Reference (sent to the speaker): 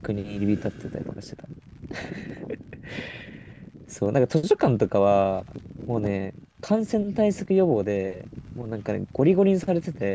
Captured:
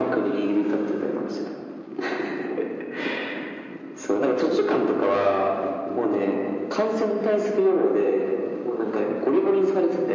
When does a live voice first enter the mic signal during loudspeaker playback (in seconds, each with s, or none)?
none